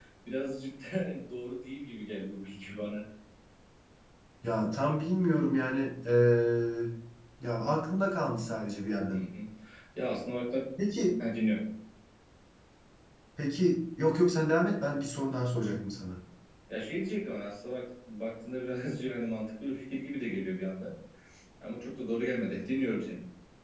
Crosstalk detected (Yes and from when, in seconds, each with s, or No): No